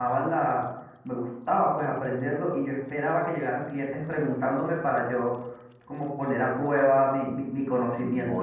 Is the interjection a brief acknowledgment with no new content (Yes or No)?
No